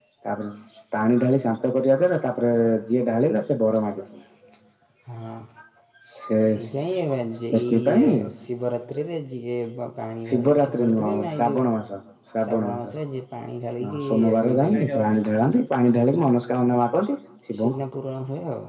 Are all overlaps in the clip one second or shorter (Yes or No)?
No